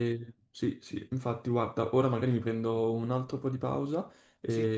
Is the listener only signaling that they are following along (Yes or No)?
Yes